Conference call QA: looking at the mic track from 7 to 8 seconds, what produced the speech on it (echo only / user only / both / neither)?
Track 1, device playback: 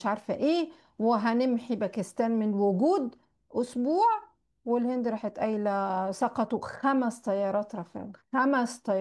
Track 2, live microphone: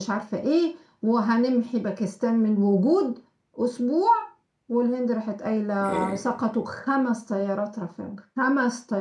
echo only